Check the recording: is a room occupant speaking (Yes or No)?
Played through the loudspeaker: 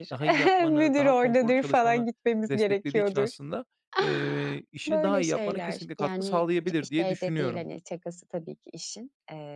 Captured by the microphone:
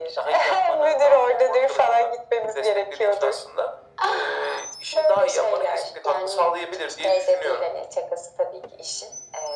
No